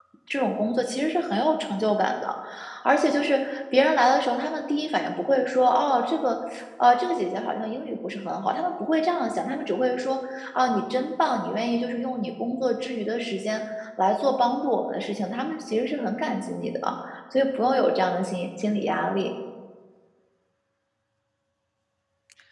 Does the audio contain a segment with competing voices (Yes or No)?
No